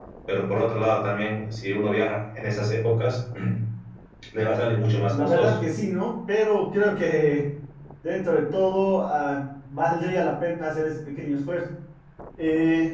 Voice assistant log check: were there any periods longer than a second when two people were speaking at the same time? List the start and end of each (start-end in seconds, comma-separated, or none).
none